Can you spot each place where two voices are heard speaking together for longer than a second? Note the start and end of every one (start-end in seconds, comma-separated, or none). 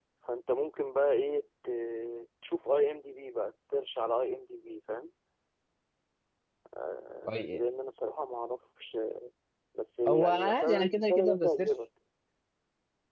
10.1-11.7